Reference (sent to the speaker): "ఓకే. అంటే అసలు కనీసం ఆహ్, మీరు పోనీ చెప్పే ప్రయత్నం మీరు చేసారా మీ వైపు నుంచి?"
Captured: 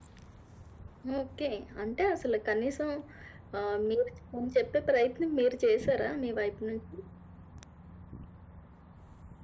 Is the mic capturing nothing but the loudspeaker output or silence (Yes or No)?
Yes